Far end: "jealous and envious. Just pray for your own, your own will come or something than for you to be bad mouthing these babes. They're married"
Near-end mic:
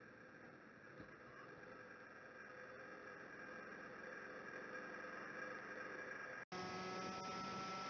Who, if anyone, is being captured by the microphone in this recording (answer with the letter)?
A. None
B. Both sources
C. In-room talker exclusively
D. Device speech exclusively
A